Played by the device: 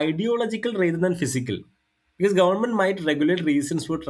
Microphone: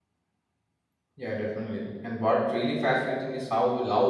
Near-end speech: present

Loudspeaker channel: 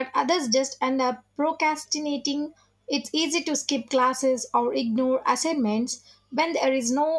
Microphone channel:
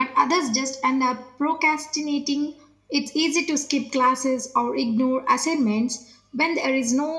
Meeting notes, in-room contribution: none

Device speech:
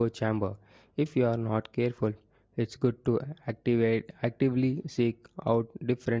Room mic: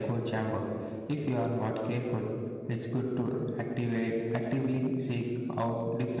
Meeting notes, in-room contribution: none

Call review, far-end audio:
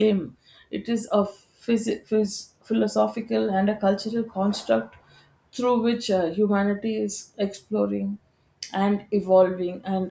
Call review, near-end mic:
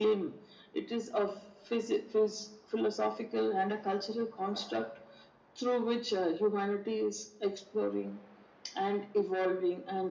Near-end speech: none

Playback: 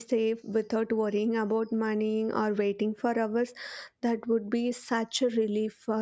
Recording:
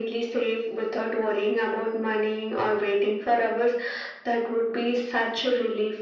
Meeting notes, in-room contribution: none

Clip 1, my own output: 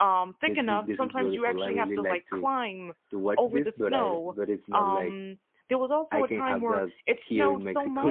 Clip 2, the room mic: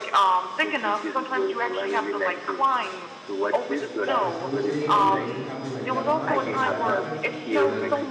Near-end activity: present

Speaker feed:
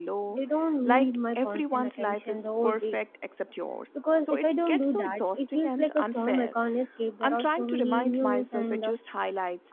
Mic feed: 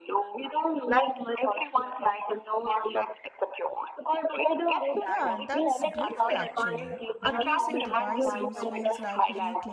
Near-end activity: present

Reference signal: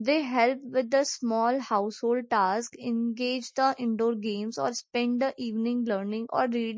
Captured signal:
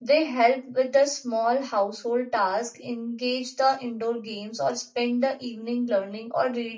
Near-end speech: none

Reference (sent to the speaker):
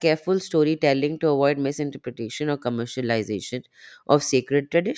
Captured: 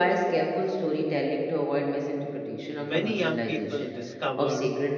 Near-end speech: present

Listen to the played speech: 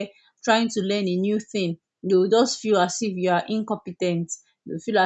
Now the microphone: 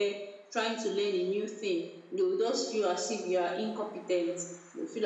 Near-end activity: none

